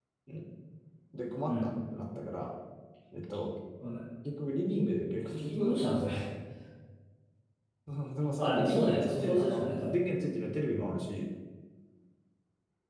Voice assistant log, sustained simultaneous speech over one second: present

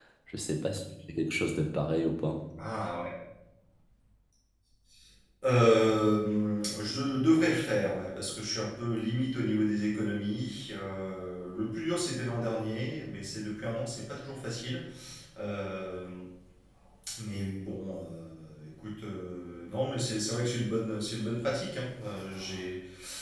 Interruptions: none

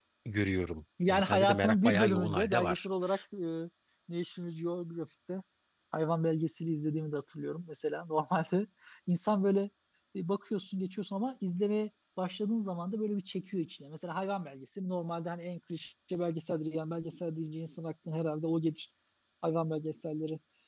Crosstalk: present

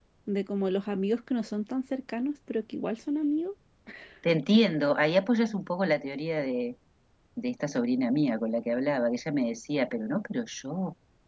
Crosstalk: none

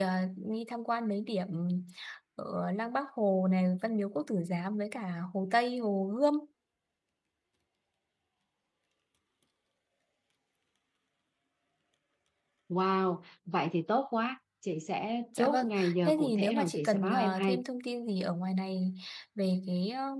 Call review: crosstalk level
present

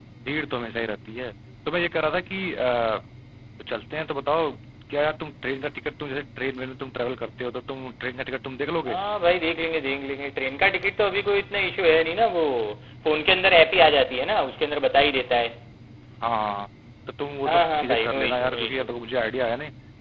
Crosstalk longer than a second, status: present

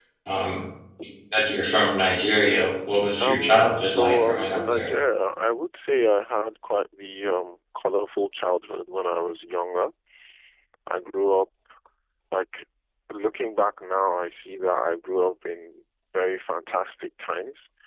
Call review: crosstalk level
present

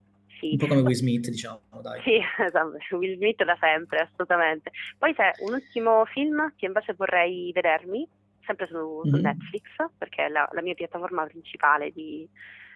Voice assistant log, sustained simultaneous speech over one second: none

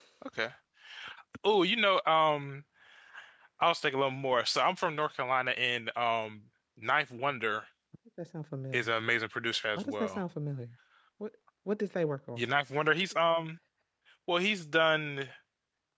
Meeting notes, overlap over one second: none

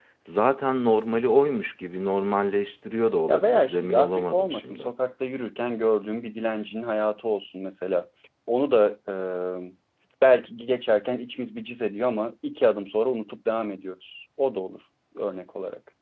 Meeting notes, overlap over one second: present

